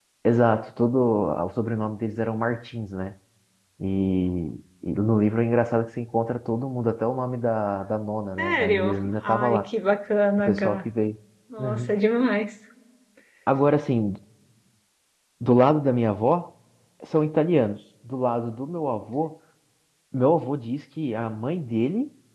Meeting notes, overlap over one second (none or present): present